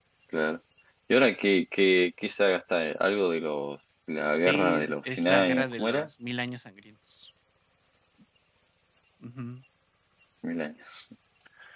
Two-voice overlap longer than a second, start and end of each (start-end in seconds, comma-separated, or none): 4.4-6.1